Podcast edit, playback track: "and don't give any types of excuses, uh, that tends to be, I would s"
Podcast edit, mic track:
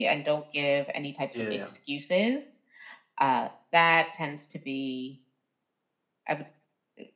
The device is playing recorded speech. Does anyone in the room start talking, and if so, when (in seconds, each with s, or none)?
1.3 s